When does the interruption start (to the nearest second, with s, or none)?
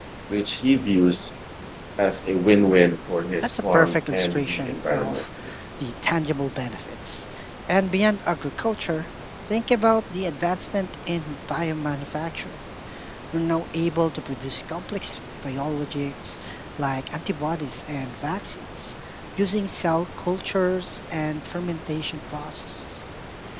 3 s